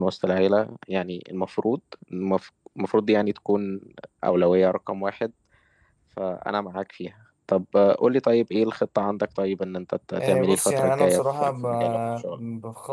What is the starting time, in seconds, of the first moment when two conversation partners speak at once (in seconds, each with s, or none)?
10.2 s